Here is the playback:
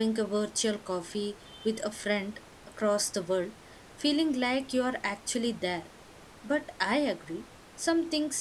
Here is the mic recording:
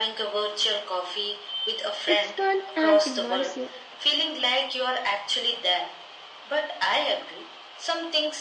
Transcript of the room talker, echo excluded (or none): It's fun and immersive,